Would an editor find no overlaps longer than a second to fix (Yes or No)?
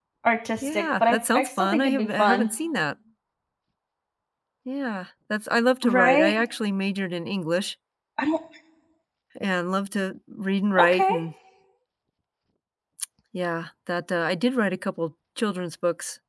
No